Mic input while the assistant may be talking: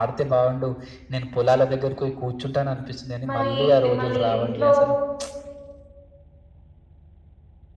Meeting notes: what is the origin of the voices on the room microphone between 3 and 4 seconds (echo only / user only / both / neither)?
both